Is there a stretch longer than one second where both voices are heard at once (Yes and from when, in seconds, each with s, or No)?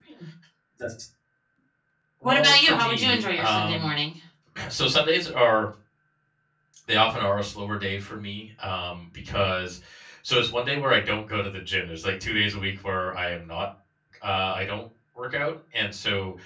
Yes, from 2.2 s